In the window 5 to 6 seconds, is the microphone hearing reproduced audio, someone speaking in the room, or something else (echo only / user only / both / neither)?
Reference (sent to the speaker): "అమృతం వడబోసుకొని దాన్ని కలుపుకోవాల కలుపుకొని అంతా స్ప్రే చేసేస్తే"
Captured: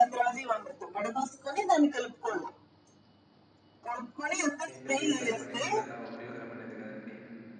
both